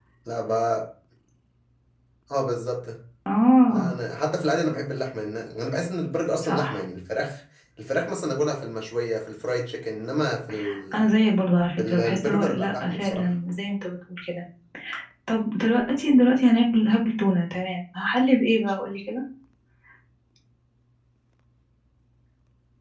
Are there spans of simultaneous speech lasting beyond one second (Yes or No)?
Yes